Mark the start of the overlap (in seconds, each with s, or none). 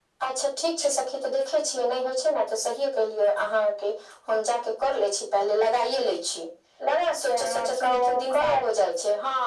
7.2 s